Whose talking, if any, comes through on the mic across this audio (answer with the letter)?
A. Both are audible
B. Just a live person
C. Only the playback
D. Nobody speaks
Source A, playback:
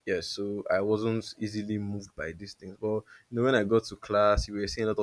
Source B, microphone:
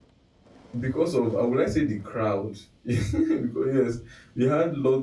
B